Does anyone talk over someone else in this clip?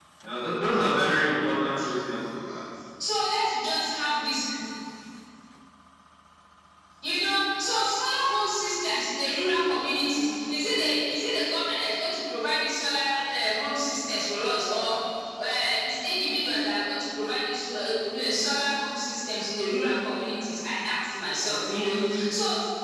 No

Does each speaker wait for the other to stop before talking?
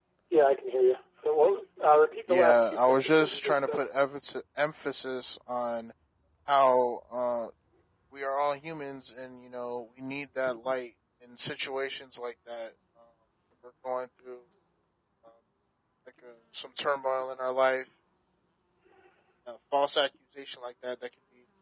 No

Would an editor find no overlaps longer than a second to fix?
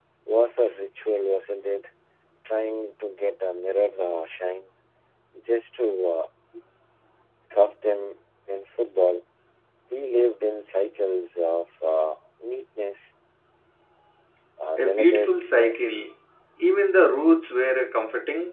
No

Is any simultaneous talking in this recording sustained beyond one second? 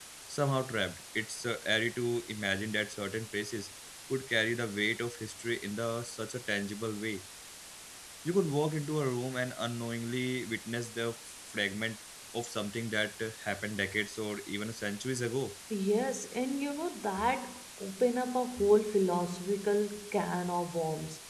No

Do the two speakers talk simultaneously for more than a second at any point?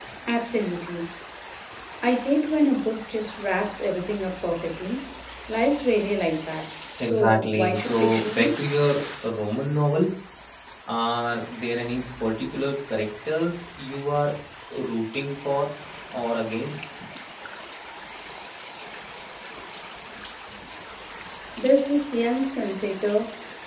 Yes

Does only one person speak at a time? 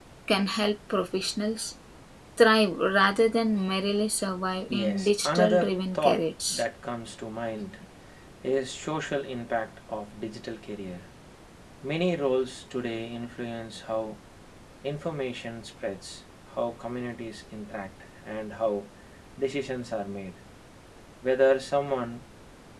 No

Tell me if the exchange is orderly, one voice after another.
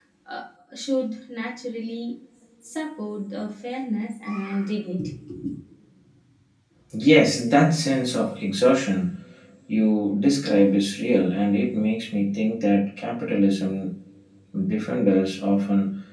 Yes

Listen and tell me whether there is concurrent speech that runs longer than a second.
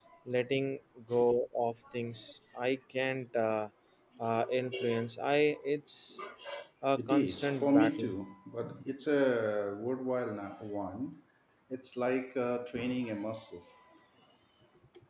Yes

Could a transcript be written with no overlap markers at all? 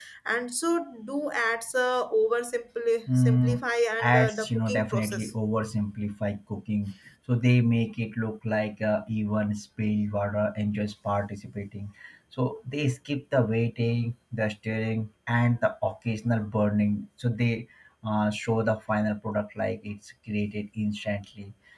No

